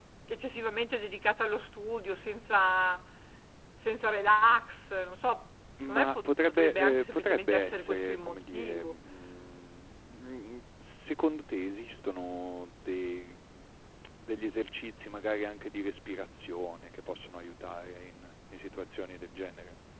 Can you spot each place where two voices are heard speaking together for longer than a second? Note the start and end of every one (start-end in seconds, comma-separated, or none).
5.9-8.9